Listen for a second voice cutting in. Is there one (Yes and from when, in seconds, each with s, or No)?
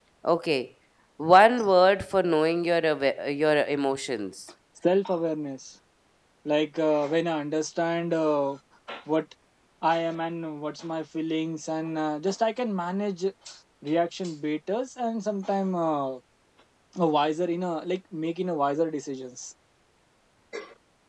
No